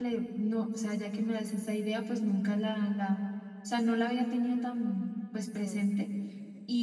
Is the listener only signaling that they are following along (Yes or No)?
Yes